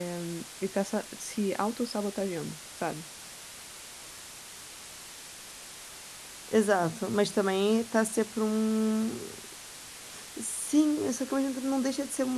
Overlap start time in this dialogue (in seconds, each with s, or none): none